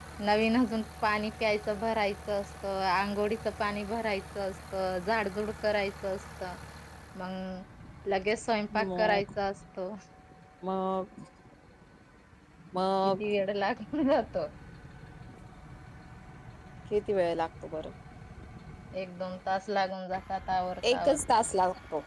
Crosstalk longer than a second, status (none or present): none